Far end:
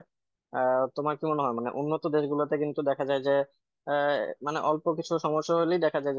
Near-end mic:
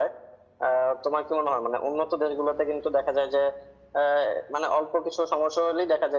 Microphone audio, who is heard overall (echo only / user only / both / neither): echo only